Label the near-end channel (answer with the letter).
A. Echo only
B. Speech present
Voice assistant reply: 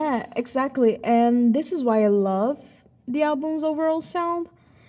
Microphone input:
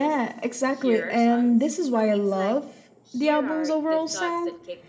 B